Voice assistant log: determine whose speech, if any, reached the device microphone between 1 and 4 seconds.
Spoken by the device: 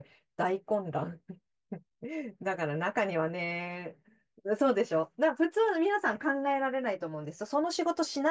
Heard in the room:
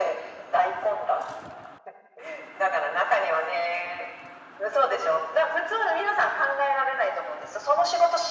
echo only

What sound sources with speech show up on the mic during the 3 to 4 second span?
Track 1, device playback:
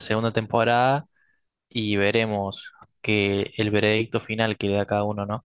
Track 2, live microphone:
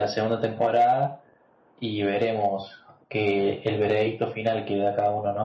echo only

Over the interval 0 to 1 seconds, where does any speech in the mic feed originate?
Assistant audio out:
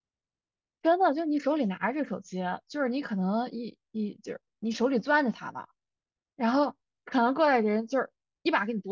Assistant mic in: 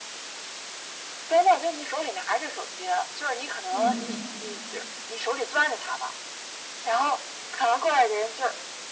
neither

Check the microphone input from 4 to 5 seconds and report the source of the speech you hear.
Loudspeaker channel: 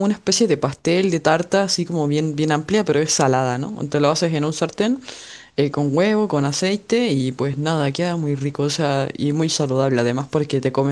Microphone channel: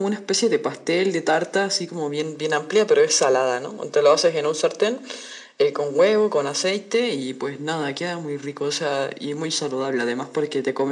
echo only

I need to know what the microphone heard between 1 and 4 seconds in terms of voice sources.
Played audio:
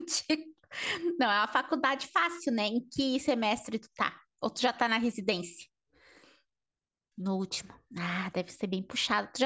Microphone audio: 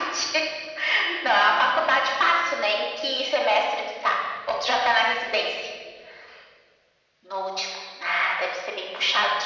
echo only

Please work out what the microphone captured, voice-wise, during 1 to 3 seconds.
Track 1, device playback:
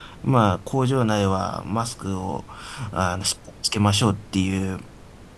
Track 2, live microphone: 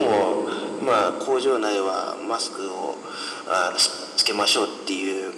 echo only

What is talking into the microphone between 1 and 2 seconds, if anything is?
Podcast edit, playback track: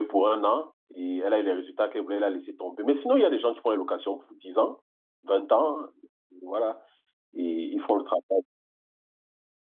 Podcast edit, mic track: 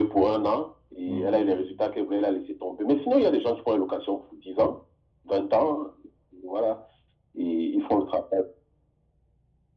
both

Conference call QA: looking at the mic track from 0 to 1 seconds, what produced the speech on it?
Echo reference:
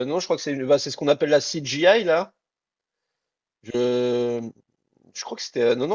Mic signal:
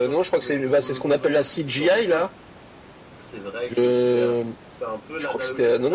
both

